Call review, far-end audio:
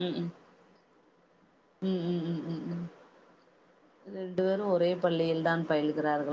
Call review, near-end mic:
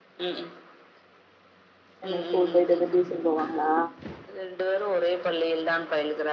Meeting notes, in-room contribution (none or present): present